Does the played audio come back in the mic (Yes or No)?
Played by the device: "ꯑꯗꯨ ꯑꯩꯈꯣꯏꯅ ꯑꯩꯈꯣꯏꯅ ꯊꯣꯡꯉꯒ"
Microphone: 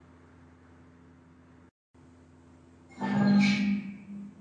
No